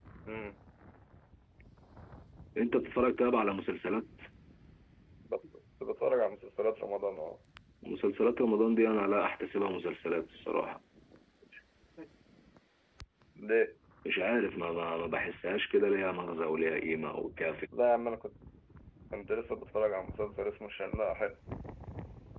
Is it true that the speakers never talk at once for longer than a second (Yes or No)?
Yes